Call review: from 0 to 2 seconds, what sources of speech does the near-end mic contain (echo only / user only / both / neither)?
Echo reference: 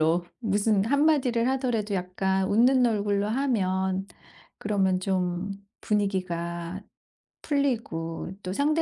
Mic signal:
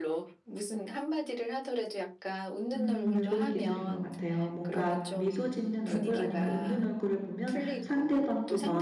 echo only